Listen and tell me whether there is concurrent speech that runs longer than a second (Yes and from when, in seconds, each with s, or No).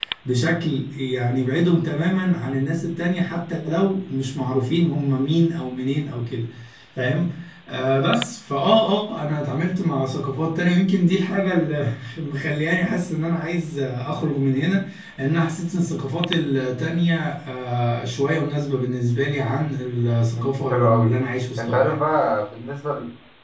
No